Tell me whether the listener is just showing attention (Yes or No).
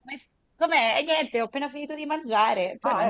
No